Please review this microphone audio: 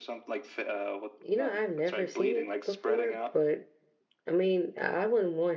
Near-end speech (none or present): present